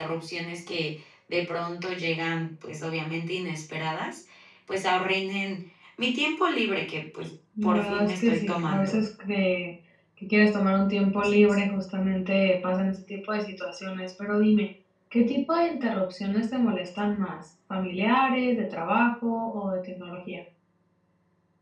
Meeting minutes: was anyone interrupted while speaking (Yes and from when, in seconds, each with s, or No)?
Yes, from 7.6 s